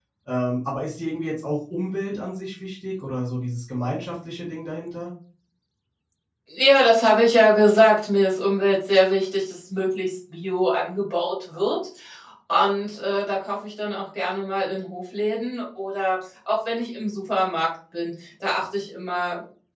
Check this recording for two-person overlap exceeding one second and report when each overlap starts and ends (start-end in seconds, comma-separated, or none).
none